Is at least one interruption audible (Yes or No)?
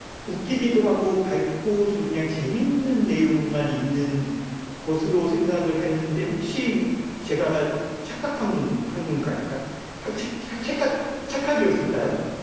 No